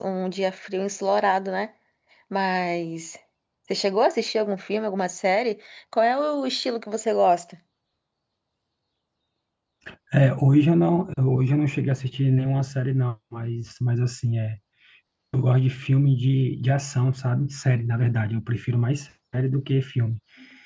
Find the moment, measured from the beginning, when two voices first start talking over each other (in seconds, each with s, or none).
none